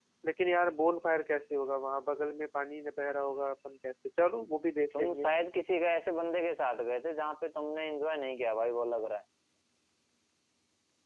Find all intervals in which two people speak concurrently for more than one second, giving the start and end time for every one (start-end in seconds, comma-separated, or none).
none